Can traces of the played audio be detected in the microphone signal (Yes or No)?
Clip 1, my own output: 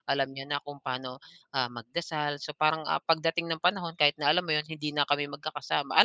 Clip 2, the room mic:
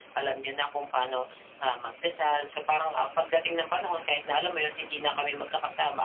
Yes